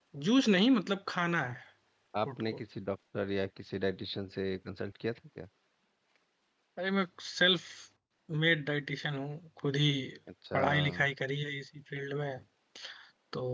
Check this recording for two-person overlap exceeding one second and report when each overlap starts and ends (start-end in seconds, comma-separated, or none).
none